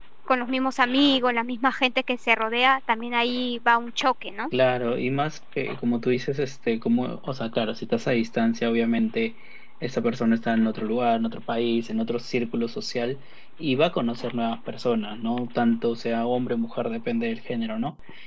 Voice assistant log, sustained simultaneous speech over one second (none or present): none